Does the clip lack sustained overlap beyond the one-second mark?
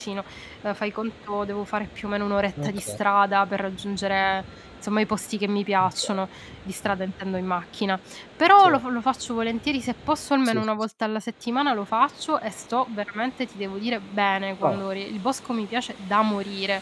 Yes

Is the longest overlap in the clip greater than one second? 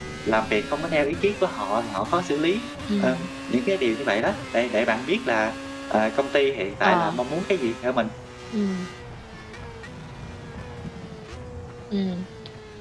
No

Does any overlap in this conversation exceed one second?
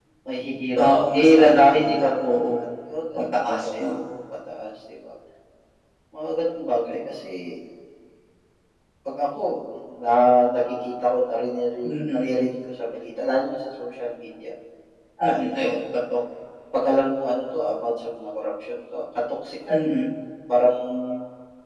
Yes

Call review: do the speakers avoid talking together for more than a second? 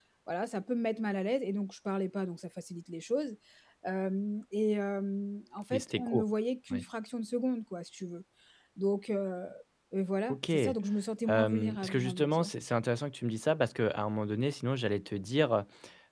No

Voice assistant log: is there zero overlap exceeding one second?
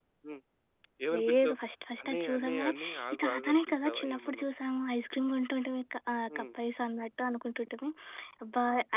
No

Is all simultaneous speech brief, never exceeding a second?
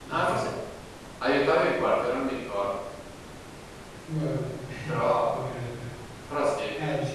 Yes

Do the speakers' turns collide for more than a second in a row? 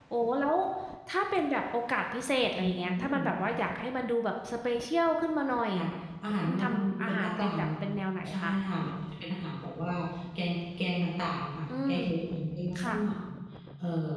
Yes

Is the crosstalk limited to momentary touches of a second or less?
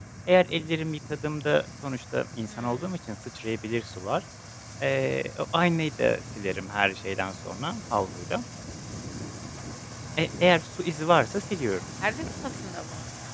Yes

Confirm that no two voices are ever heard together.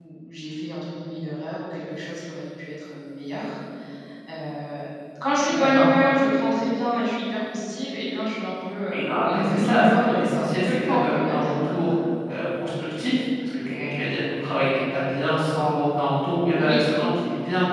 No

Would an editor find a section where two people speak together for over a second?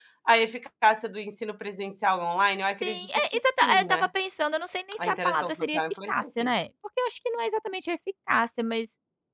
Yes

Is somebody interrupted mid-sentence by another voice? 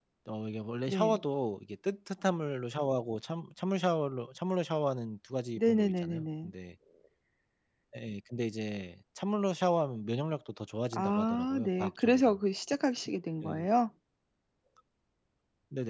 Yes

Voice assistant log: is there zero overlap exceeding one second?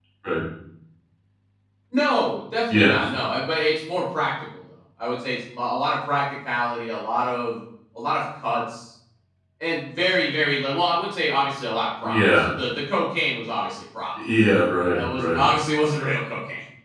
Yes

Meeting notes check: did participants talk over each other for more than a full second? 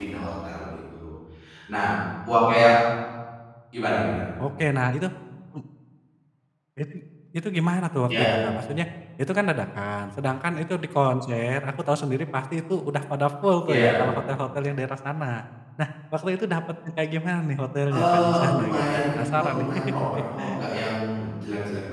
Yes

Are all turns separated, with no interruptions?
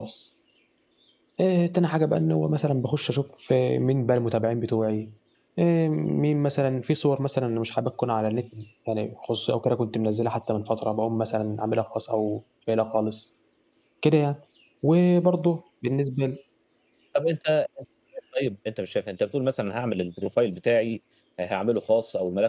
Yes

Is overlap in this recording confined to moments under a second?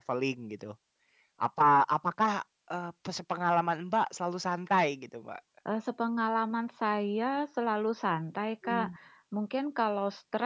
Yes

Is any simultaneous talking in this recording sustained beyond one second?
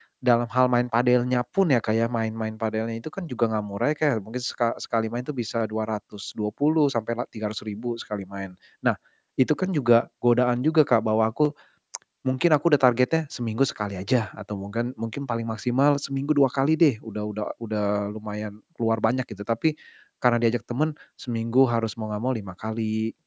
No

